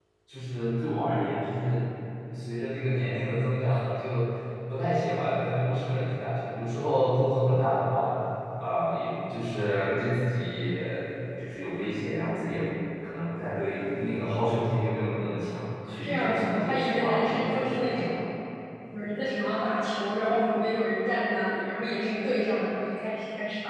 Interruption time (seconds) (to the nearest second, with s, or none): 16 s